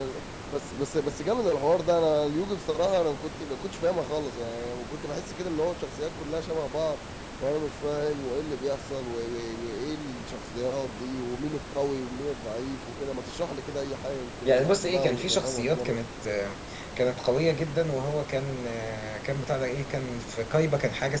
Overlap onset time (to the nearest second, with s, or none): 14 s